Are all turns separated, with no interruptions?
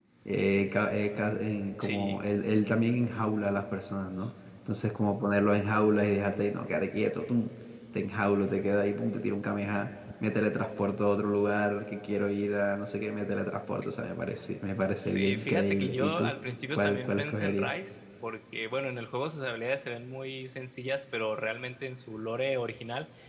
No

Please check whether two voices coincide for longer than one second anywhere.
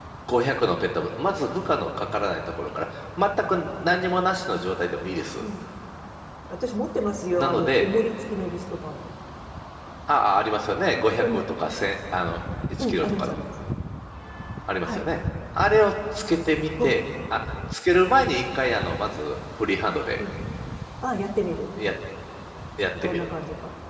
No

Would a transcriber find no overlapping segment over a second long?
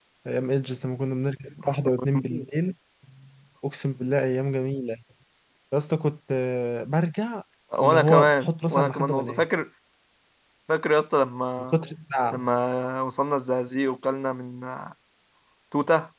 No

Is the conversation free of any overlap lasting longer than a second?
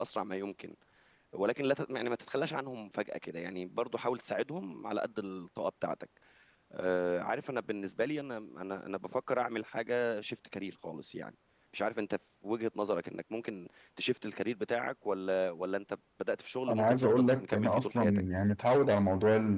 No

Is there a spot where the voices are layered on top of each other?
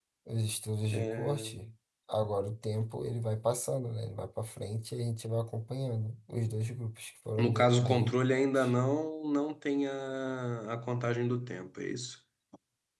Yes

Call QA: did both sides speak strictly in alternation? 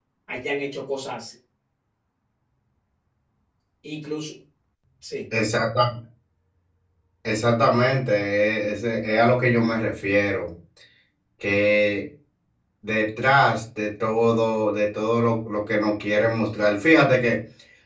Yes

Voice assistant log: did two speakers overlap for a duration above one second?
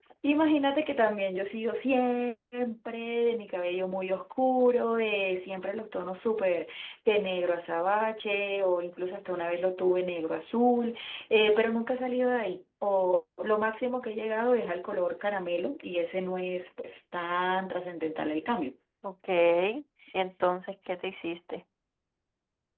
No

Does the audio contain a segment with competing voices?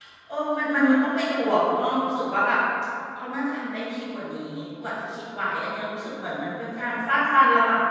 No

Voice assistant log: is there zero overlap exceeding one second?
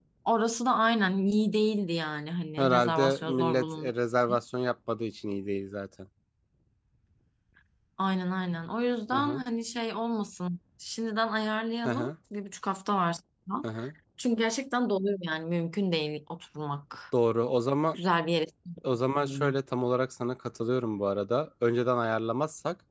No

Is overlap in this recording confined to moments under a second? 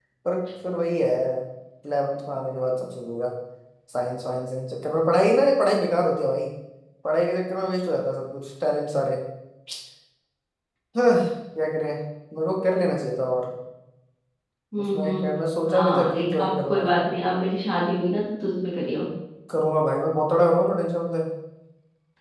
No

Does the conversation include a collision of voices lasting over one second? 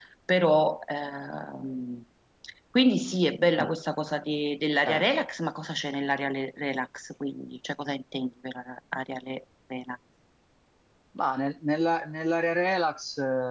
No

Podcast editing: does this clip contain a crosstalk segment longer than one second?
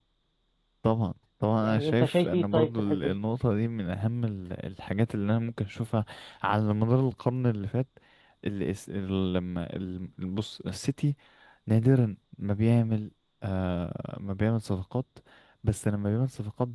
Yes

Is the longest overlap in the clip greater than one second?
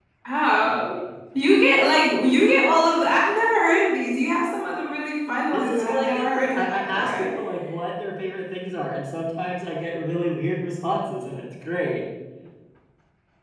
Yes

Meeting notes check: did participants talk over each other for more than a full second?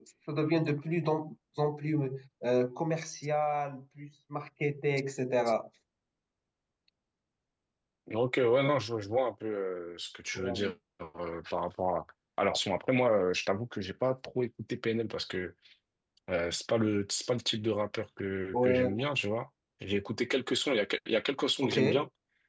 No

